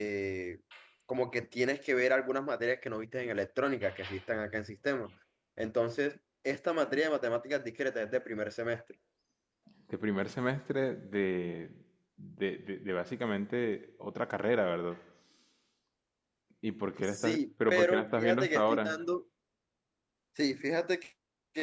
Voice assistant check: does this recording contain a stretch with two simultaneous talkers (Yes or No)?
Yes